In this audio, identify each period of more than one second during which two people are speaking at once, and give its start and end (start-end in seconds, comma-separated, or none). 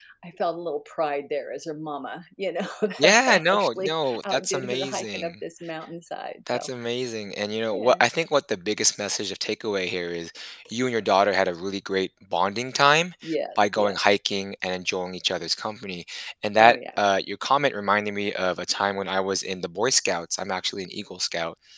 3.0-5.3